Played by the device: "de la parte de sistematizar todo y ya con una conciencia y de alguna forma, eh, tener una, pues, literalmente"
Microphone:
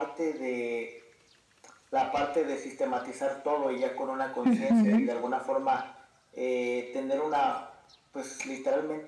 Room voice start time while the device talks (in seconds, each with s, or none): 4.5 s